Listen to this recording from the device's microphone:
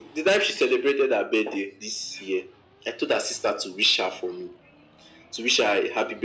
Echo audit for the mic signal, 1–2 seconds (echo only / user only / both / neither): echo only